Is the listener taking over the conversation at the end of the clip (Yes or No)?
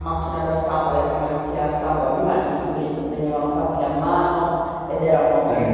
No